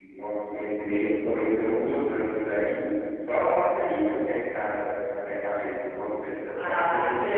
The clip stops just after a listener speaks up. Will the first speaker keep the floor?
No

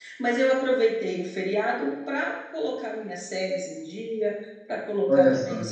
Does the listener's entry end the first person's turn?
No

